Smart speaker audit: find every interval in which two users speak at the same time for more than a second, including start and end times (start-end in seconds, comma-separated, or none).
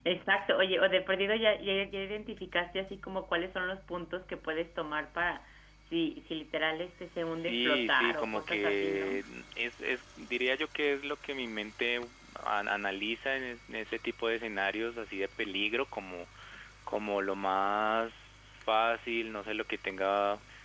7.2-9.2